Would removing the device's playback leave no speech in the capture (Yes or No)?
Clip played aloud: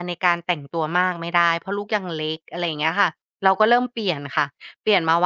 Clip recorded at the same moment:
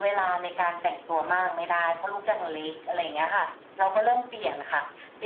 Yes